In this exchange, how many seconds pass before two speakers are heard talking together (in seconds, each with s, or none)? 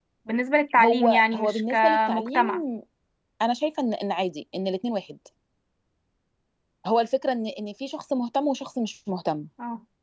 0.8 s